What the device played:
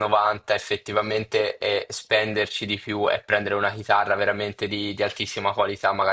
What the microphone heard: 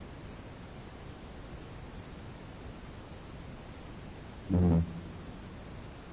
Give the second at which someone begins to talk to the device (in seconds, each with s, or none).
4.5 s